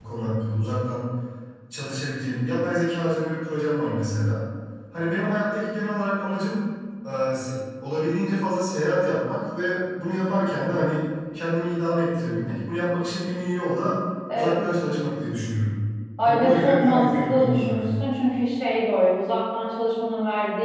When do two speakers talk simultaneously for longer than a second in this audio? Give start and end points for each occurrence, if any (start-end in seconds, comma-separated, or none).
16.2-17.9